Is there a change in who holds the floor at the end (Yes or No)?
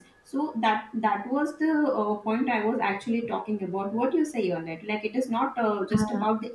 No